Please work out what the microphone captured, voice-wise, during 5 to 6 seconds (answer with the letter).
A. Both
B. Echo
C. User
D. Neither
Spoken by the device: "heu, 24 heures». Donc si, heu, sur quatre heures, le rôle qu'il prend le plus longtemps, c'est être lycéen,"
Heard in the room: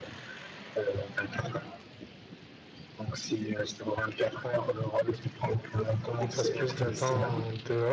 B